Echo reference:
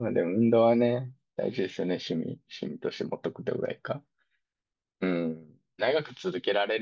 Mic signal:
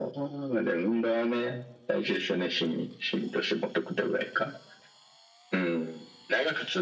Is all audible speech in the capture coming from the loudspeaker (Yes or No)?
Yes